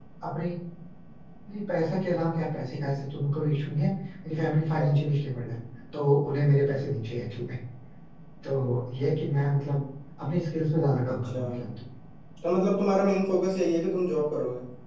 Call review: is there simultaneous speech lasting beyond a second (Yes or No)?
No